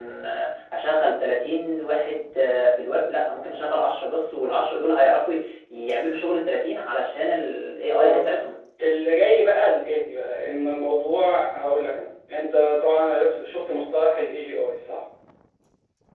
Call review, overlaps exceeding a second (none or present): none